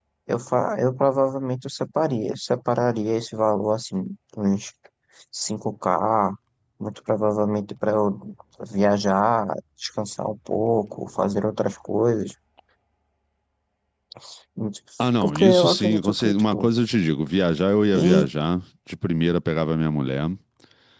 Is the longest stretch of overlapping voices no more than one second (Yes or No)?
No